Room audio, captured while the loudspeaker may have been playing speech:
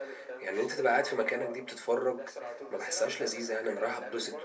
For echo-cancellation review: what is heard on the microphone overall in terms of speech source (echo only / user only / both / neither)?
both